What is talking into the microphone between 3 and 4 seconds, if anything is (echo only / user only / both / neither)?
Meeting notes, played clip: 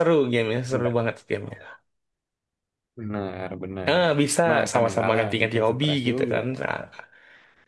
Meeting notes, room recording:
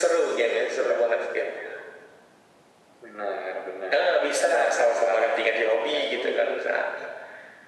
echo only